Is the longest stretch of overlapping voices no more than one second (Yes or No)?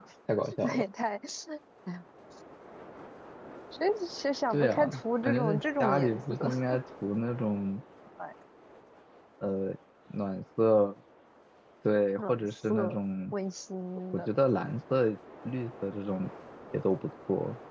No